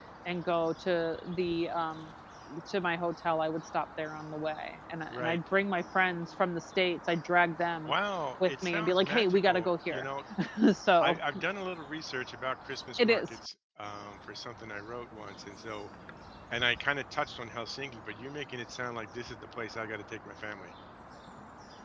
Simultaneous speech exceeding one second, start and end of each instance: 8.5-10.0

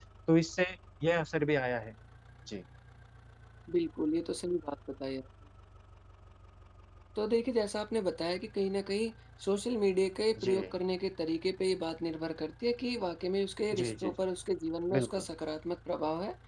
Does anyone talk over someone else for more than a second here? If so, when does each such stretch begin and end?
none

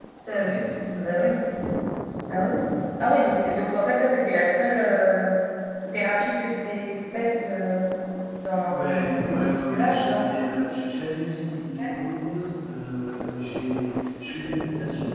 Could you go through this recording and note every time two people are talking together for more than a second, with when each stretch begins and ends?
8.7-10.2

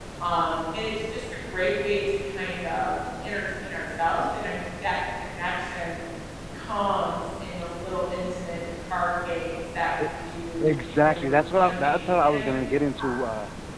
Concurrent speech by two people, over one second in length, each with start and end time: 11.1-12.7

